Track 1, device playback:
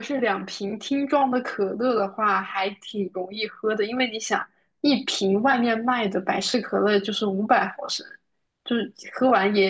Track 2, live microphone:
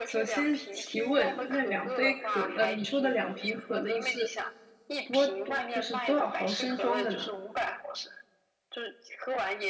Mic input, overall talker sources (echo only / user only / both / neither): both